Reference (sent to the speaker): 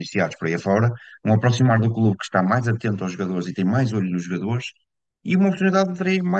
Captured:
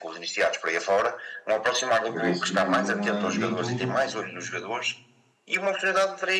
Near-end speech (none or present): present